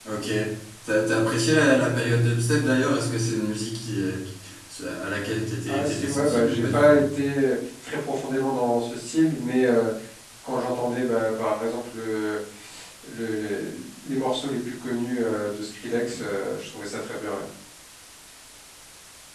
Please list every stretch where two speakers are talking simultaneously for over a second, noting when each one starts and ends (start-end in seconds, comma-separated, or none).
5.7-7.0